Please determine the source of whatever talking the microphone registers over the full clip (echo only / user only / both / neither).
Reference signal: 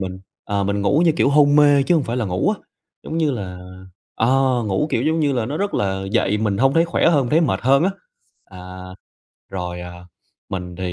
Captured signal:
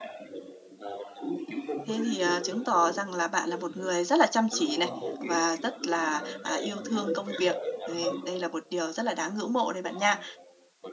both